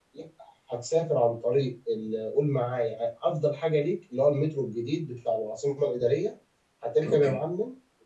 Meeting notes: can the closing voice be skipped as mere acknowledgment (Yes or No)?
Yes